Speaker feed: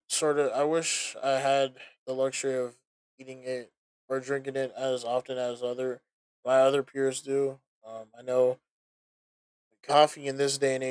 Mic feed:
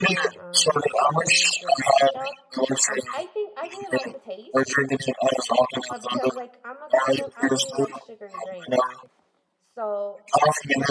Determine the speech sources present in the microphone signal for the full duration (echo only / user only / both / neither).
both